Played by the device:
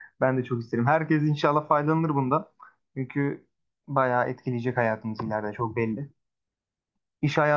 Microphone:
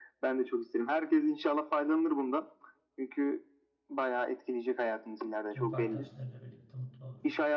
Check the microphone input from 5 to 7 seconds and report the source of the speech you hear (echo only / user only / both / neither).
both